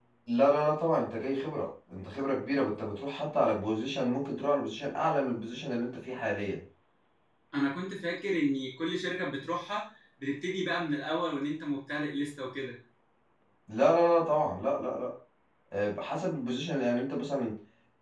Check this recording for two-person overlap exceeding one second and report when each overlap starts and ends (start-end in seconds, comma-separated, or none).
none